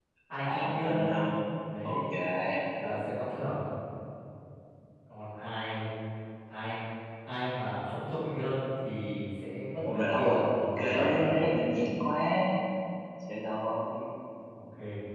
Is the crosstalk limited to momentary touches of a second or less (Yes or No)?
No